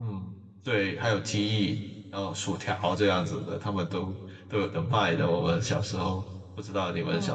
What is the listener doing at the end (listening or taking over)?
taking over